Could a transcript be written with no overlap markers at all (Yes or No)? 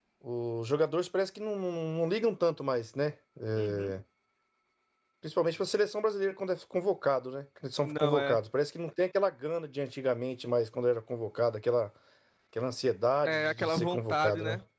No